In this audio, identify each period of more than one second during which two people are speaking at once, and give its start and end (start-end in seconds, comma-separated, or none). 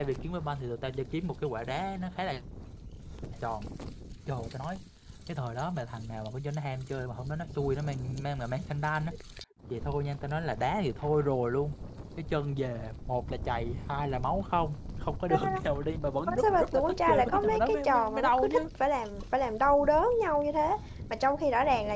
16.3-18.6